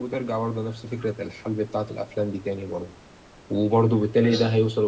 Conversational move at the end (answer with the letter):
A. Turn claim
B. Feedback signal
B